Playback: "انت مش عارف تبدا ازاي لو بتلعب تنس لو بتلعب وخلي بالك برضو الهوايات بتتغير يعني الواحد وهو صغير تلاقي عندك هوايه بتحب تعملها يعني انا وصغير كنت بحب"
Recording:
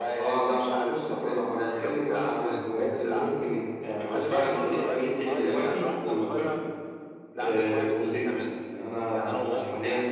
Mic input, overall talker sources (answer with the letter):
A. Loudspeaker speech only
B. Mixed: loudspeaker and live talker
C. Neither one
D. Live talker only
B